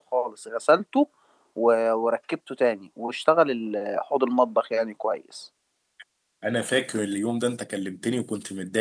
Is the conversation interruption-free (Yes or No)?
Yes